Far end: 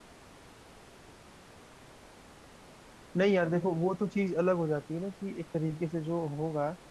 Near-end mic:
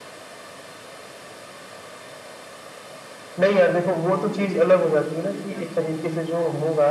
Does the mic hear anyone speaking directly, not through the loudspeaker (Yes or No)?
Yes